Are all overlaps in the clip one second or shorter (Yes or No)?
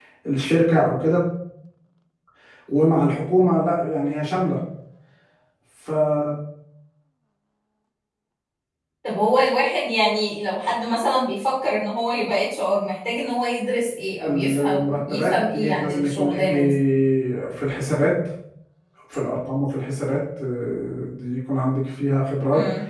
No